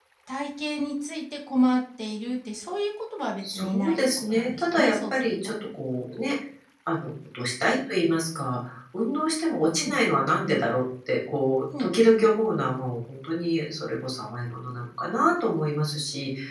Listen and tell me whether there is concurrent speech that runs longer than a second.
Yes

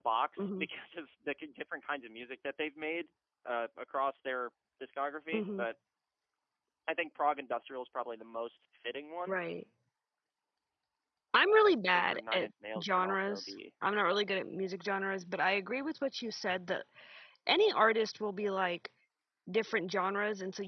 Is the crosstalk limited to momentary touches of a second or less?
No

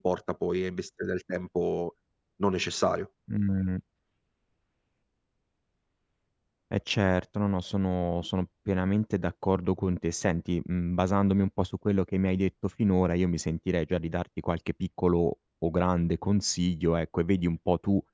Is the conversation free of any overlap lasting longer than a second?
Yes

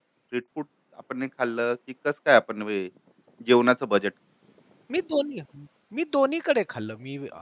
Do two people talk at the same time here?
No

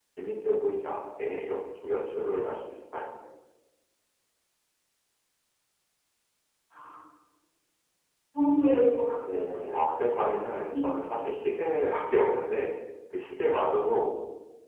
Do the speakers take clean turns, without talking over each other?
No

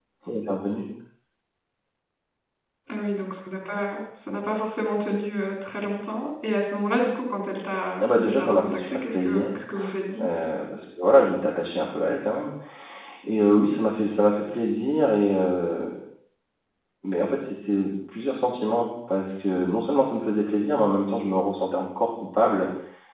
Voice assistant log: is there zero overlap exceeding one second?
No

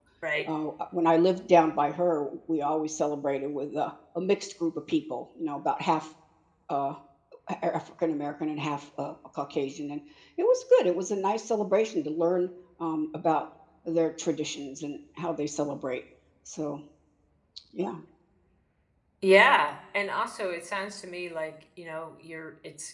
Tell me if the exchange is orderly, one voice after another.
Yes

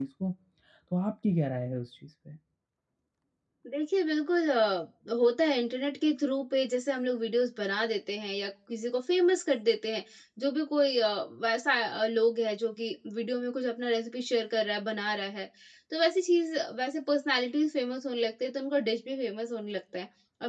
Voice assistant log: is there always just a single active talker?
Yes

